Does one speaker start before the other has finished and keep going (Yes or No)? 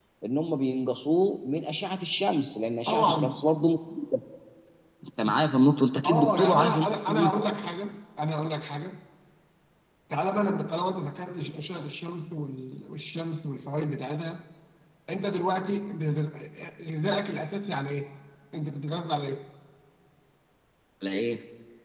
Yes